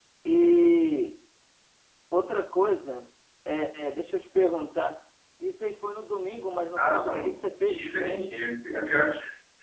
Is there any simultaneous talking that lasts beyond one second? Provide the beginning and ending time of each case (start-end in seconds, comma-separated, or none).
6.8-8.3